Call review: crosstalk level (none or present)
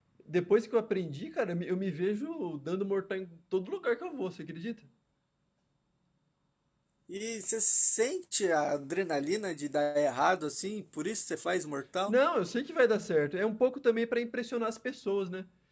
none